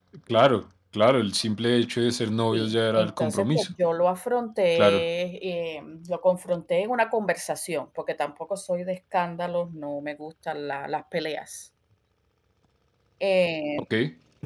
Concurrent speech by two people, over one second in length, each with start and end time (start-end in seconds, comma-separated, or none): 2.5-3.7